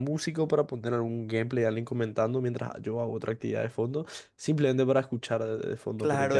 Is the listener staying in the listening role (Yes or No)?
No